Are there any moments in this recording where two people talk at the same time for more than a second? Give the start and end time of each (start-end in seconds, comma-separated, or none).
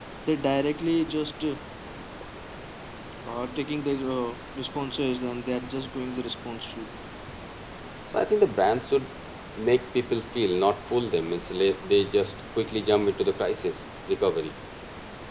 none